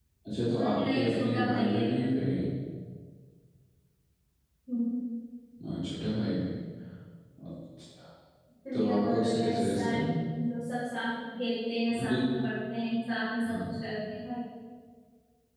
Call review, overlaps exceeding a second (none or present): present